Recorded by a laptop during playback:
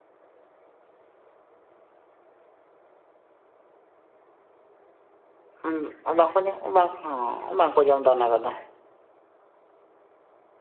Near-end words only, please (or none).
ᱦᱩᱸ ᱚᱱᱟ ᱠᱚᱫᱚ ᱵᱟᱝ, ᱦᱮᱸ ᱵᱟᱝᱠᱚ ᱡᱚᱢᱫᱟ ᱚᱱᱟ ᱠᱚᱫᱚ᱾